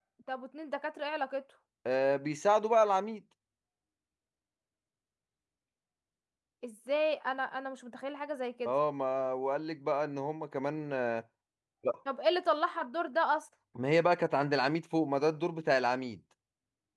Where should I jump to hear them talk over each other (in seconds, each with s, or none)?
none